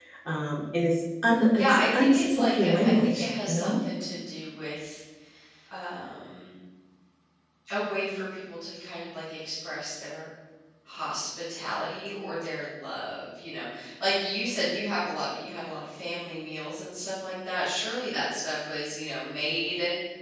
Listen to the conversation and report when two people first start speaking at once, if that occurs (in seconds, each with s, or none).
1.5 s